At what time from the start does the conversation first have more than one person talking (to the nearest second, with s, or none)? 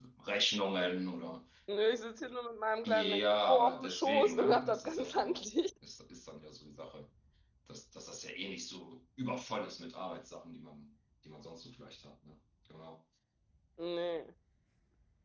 3 s